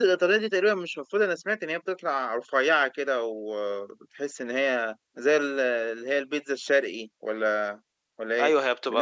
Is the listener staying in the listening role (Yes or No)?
No